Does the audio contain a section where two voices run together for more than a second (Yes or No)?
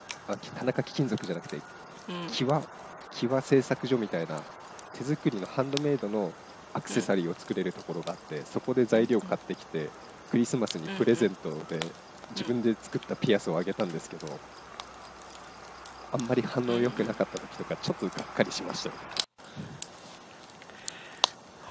No